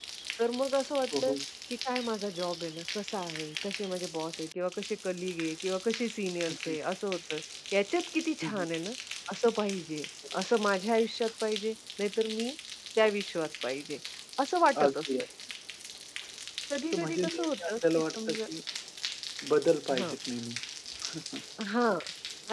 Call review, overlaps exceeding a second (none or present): present